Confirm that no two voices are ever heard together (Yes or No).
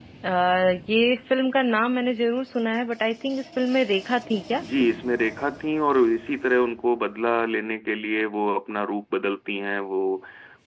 Yes